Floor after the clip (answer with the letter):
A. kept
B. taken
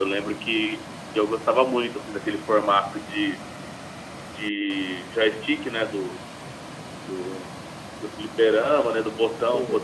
A